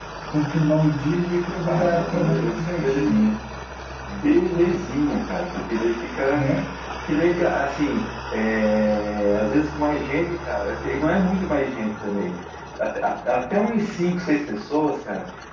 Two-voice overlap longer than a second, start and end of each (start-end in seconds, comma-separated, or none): 1.6-3.4